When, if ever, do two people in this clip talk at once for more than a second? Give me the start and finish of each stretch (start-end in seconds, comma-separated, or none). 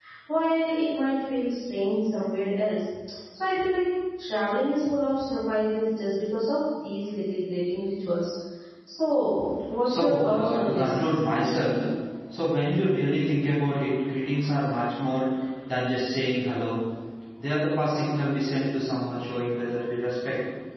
9.8-11.2